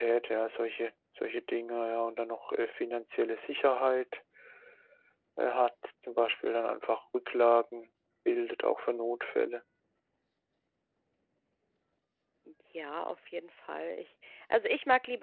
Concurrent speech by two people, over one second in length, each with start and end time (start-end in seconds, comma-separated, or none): none